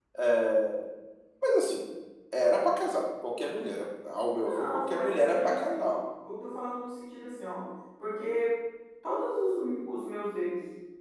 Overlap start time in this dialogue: 4.5 s

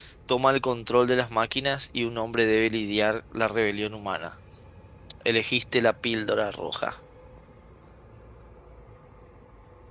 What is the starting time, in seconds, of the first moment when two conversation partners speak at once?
none

